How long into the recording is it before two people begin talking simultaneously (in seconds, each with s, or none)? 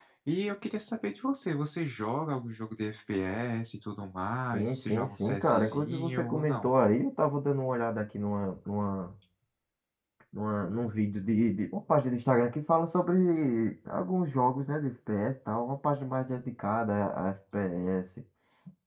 4.5 s